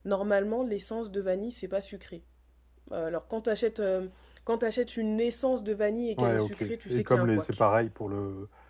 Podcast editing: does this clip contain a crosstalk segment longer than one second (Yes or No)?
Yes